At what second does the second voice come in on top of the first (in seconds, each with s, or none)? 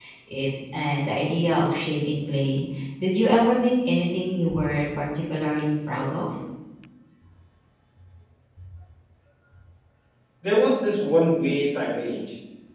none